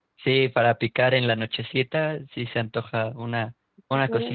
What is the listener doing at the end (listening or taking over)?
listening